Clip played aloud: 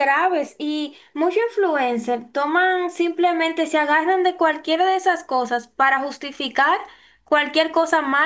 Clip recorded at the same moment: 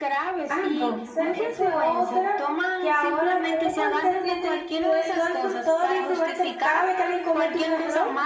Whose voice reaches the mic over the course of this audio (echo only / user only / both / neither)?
both